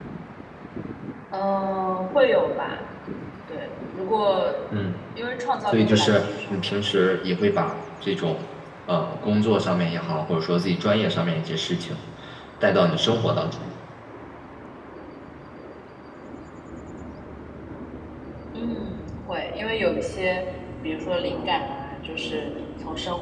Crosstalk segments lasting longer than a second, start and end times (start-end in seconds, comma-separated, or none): 5.7-6.9